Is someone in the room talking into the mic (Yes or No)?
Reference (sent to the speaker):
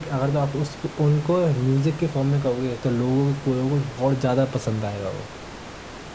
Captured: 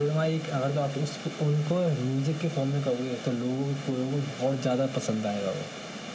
No